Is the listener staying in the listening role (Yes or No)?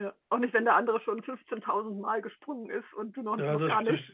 No